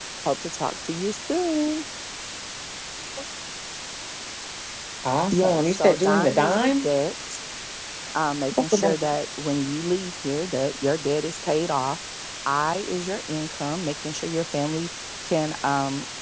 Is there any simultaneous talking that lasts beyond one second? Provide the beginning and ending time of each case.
5.3-6.9

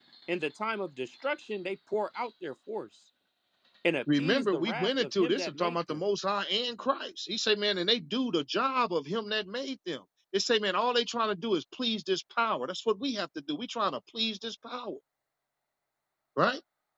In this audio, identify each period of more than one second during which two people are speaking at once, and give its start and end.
4.2-6.0

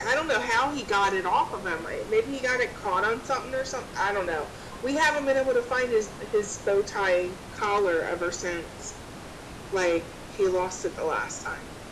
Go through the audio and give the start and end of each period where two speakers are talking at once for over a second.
none

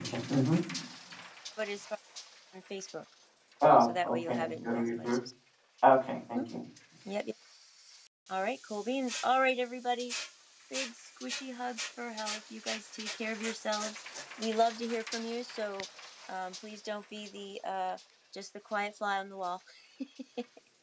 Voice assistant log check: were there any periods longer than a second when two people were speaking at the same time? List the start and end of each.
3.8-5.2

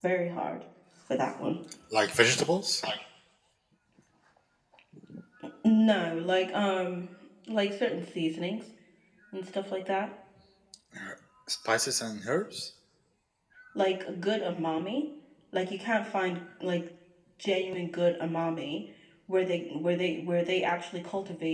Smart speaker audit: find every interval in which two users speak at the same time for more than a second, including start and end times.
none

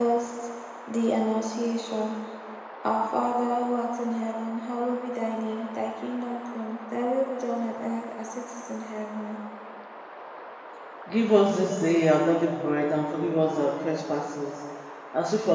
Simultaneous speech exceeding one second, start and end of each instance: none

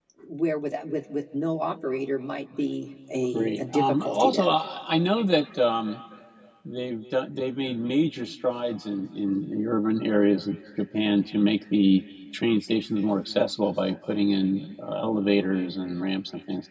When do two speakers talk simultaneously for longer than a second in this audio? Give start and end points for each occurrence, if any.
3.3-4.5

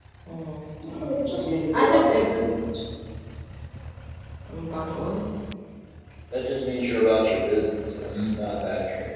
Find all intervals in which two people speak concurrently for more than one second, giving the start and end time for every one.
0.8-2.2

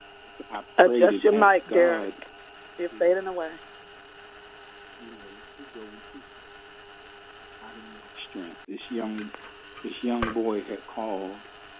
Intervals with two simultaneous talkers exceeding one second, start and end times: 0.9-2.1

